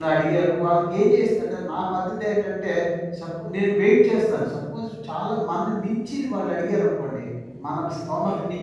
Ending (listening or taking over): listening